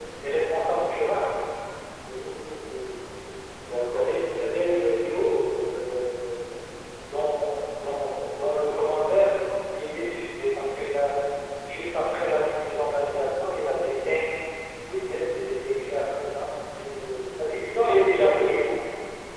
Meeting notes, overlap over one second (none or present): present